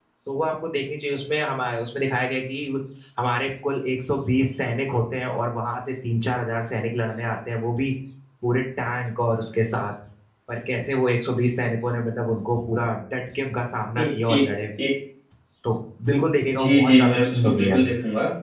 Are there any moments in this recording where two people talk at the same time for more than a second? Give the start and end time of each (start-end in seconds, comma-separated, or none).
16.5-17.8